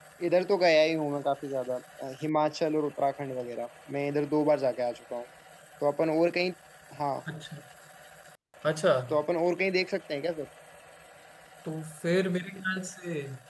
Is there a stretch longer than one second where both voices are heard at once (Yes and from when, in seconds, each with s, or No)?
No